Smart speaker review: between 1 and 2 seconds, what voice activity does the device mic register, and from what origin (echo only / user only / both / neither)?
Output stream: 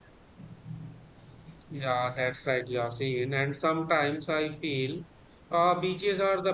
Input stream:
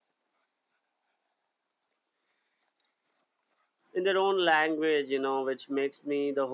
neither